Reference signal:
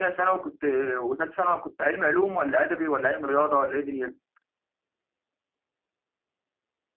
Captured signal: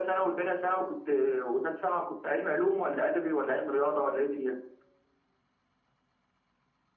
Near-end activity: none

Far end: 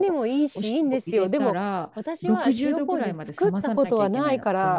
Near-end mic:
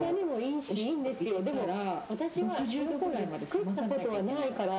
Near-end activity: none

